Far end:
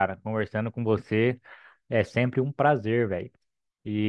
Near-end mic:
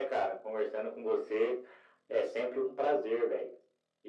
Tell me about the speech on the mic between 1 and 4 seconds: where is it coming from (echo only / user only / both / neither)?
echo only